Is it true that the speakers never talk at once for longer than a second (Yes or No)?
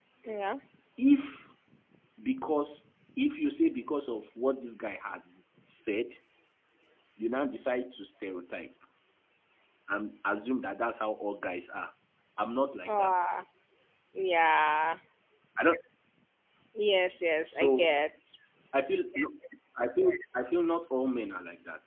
Yes